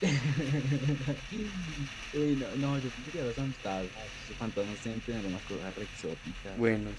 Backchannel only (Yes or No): Yes